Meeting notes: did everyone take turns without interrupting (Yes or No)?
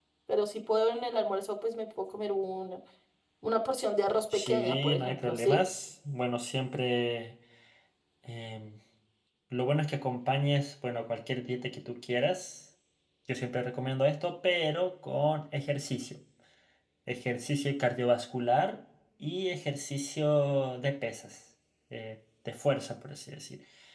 No